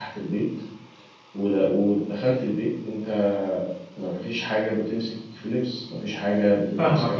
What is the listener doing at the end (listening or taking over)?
taking over